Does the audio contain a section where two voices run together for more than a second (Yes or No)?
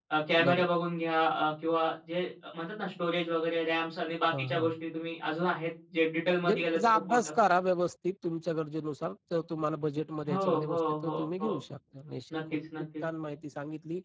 Yes